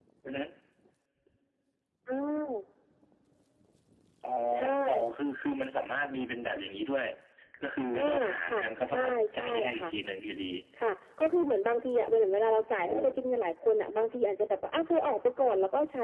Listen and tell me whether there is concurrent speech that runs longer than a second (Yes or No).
Yes